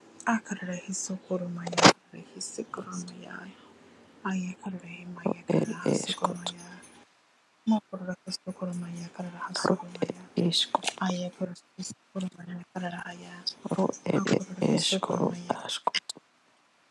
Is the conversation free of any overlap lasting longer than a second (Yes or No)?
No